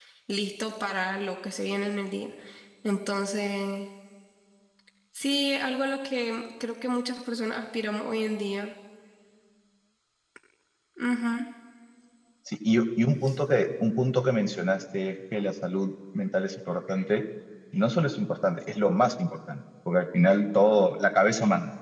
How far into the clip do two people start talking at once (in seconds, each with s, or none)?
none